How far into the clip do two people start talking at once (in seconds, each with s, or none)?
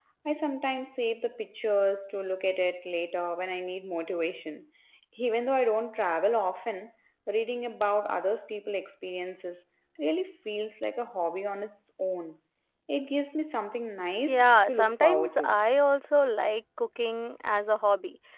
14.3 s